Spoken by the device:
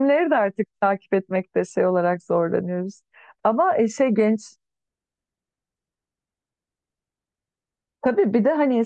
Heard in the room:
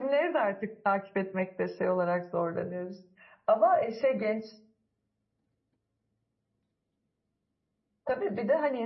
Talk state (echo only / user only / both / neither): echo only